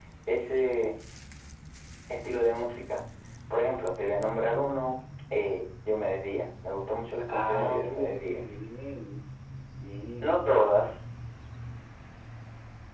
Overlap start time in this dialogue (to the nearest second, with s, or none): 7 s